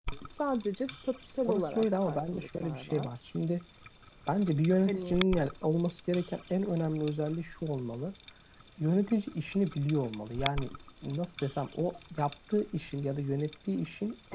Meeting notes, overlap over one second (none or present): present